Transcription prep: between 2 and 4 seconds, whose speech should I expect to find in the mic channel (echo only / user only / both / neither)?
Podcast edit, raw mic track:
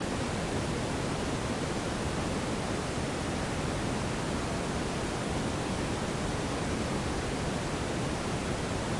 neither